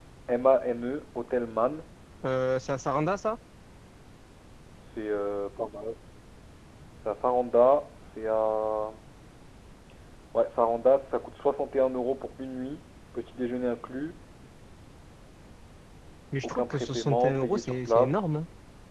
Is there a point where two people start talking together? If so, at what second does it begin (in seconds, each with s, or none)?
16.4 s